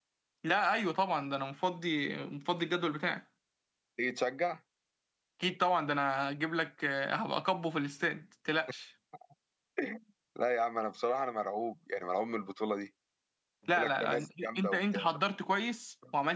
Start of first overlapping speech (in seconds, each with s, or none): 13.7 s